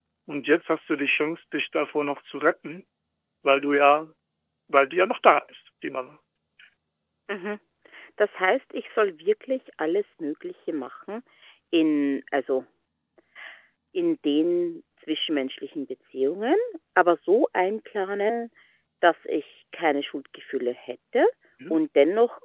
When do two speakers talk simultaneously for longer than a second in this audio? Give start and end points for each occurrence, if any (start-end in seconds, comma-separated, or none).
none